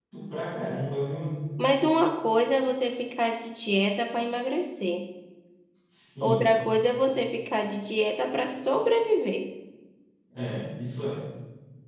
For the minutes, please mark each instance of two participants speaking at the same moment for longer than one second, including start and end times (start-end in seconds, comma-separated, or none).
none